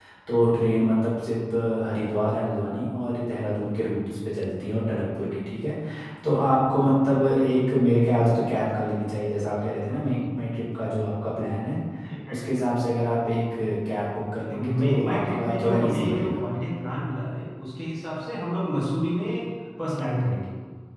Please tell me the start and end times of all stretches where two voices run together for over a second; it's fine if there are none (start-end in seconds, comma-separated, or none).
14.5-16.4